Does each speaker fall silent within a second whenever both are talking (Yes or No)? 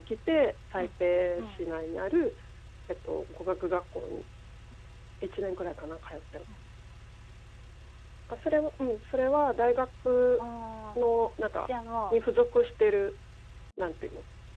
Yes